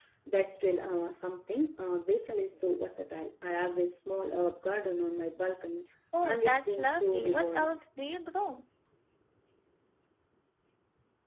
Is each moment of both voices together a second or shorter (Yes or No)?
No